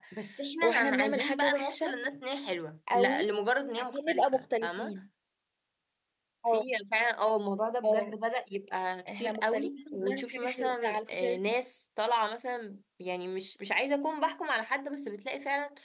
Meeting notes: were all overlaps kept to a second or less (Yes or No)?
No